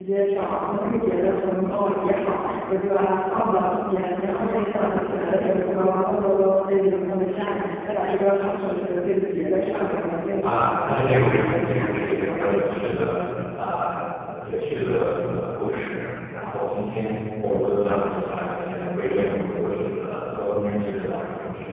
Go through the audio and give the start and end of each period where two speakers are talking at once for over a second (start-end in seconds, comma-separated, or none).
10.4-12.7